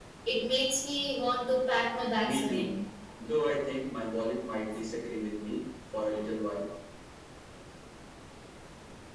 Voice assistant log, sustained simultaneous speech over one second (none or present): none